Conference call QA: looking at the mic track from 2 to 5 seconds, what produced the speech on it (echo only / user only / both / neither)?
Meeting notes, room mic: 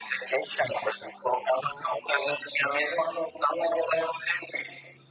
echo only